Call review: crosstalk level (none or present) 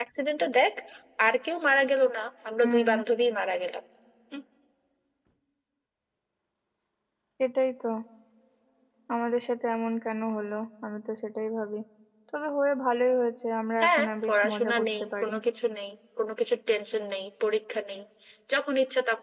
present